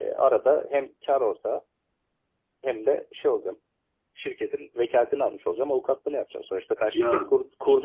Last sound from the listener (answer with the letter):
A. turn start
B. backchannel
B